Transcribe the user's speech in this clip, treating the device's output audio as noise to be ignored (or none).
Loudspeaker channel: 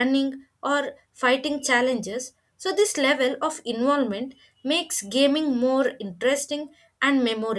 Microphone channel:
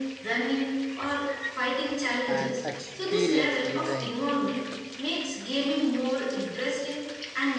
and experience designed